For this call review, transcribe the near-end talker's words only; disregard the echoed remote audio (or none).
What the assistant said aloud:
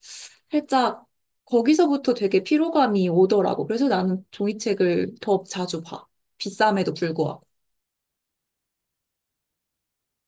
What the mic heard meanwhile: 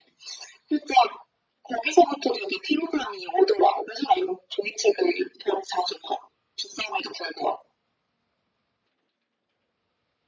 none